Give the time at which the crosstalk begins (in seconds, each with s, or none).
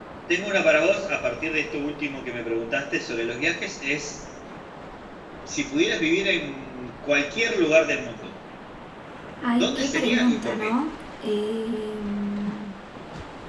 9.5 s